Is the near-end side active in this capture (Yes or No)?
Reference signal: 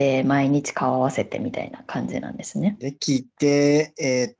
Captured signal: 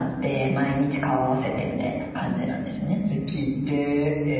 No